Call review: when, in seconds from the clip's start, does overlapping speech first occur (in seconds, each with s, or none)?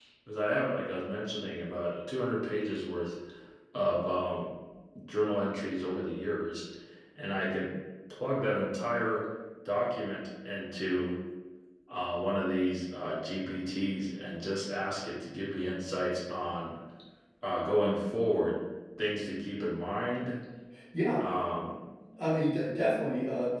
none